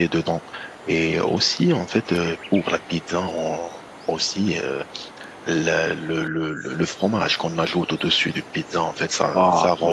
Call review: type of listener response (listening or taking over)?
listening